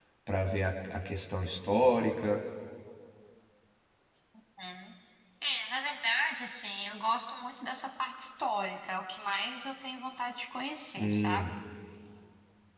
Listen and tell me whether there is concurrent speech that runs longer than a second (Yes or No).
No